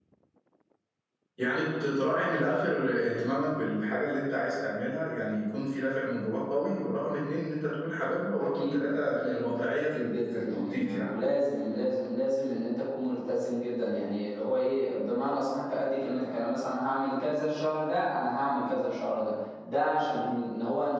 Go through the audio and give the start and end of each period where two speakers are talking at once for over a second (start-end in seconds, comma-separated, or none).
8.4-11.1